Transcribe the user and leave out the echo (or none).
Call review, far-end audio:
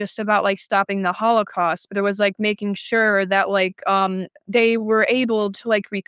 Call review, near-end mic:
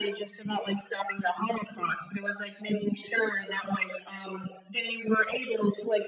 none